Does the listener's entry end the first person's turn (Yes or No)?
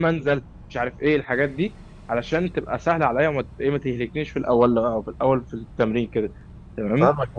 Yes